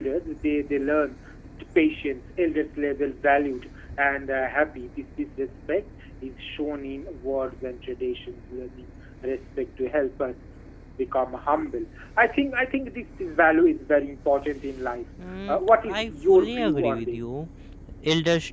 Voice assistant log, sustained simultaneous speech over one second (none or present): present